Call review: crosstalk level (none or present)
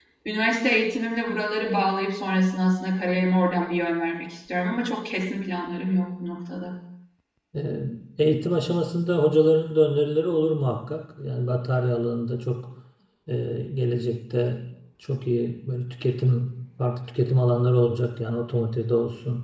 none